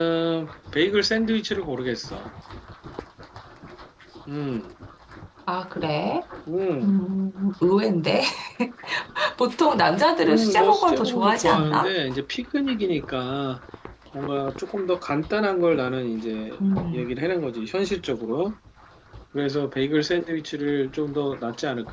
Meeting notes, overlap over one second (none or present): present